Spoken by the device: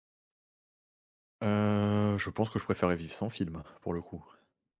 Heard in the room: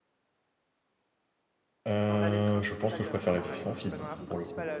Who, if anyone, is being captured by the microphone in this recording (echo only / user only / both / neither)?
both